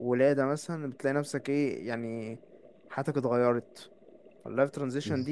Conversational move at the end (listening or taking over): listening